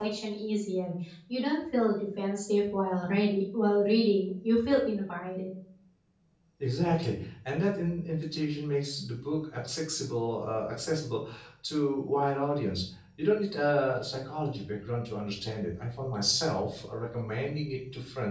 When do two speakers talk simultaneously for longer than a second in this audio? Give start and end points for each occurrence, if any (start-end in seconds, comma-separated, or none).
none